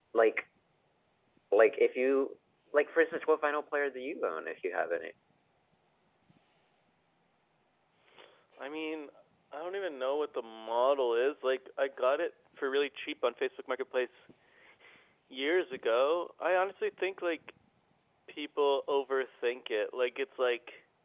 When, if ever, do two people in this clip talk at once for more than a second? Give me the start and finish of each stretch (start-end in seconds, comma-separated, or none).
none